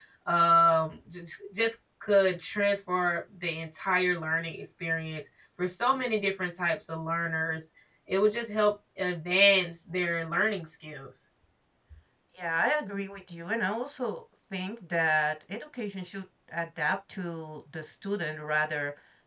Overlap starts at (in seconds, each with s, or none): none